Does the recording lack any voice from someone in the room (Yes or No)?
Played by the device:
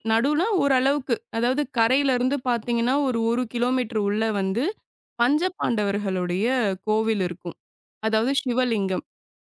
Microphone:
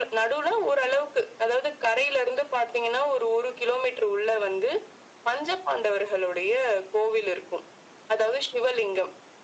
Yes